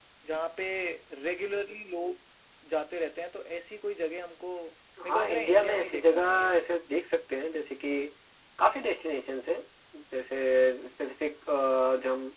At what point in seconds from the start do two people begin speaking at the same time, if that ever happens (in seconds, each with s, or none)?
5.0 s